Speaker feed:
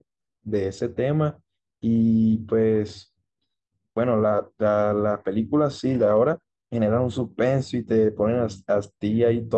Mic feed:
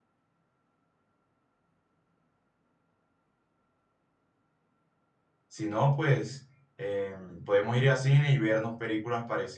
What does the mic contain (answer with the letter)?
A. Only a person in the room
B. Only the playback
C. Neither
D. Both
A